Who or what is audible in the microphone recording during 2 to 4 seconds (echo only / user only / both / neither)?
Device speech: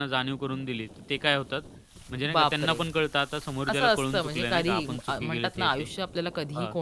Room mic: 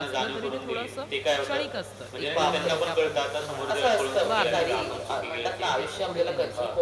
both